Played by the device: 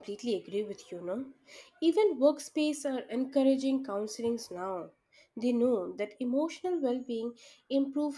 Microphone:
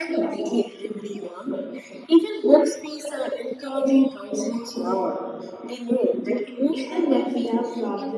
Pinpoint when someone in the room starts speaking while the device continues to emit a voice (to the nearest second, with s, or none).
7 s